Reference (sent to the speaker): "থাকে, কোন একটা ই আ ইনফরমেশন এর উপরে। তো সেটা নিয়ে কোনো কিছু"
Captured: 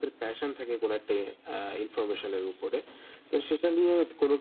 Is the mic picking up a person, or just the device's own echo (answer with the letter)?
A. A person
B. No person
B